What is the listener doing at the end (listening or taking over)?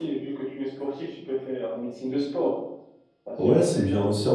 taking over